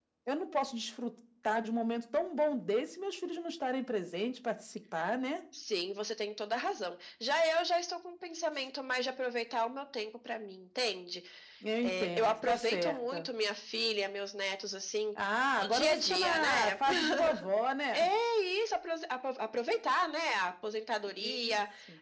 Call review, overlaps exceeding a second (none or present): present